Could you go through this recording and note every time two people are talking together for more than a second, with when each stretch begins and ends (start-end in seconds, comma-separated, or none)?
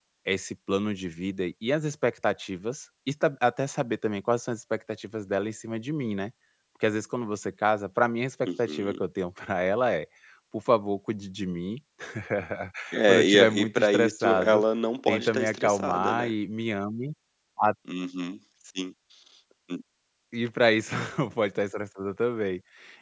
13.1-14.6, 15.1-16.3